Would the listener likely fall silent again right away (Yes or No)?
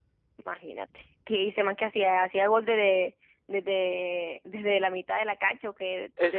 No